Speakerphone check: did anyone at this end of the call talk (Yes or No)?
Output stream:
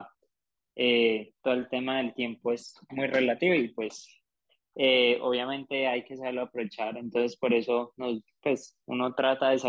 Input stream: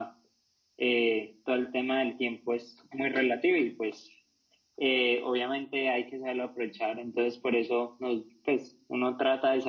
No